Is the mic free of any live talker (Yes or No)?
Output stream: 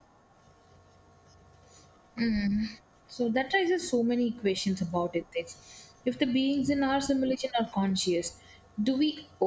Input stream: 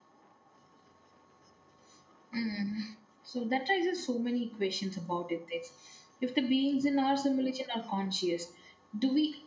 Yes